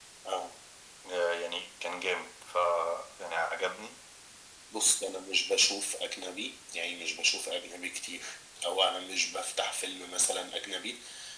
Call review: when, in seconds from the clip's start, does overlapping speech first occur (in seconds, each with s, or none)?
none